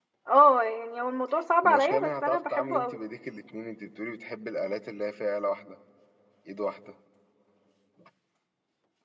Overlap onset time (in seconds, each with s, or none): 1.6 s